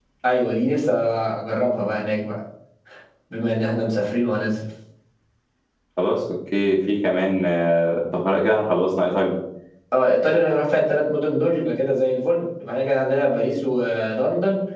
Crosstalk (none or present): none